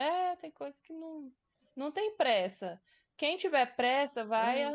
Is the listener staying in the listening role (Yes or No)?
Yes